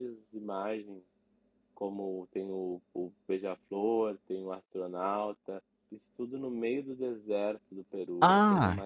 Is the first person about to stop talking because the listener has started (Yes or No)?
Yes